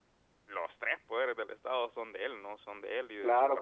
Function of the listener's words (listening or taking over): taking over